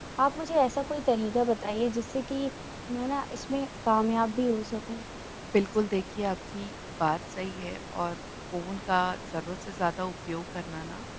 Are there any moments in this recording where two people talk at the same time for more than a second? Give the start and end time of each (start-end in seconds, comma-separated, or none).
none